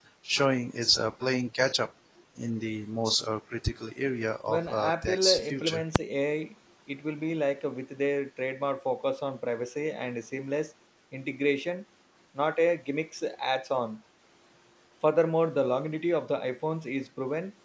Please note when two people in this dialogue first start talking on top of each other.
4.5 s

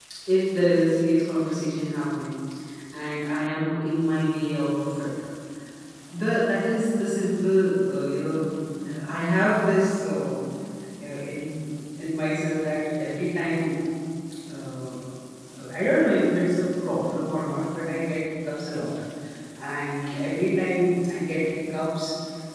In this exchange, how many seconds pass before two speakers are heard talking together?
none

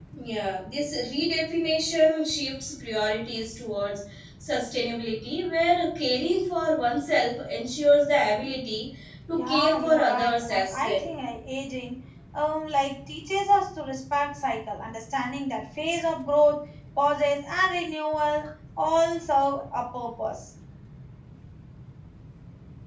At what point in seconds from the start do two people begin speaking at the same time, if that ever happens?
9.3 s

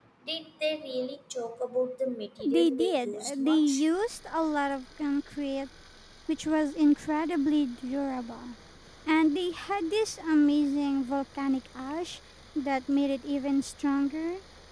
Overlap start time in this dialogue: 2.4 s

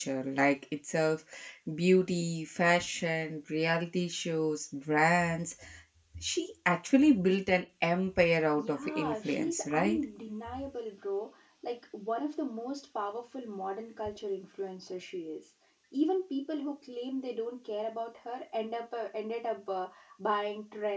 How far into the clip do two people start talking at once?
8.6 s

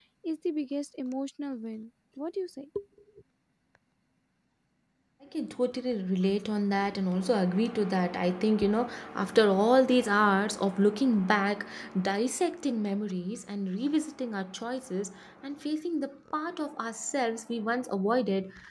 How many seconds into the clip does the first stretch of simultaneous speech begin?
none

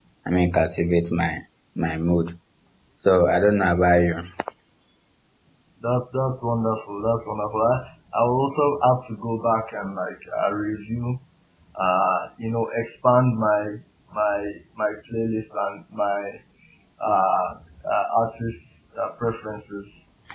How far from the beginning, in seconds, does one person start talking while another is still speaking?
none

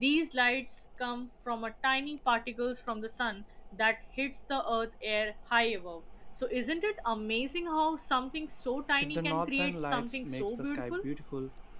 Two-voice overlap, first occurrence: 9.0 s

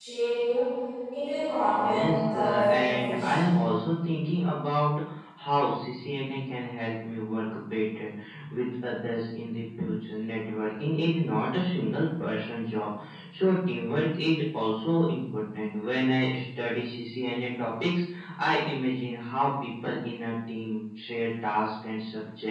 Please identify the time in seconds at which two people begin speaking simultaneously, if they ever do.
1.6 s

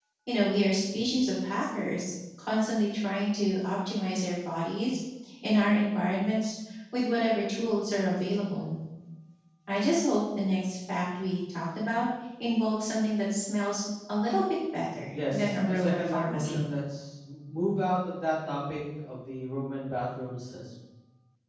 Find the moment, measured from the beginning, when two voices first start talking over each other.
15.1 s

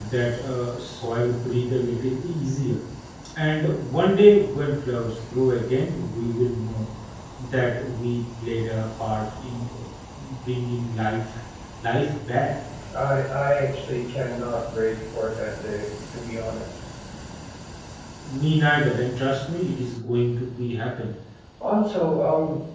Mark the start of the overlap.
none

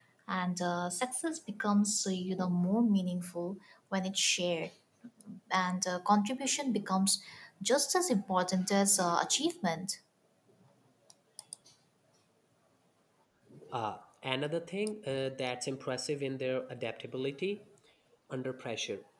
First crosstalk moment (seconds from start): none

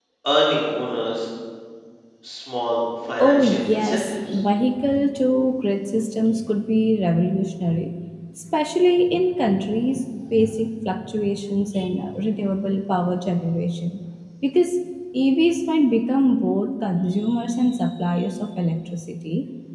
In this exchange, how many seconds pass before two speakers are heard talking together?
3.2 s

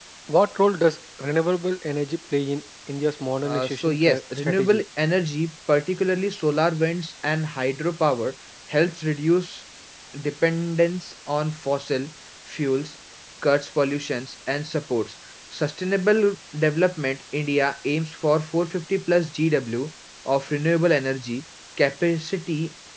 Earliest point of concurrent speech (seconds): 3.4 s

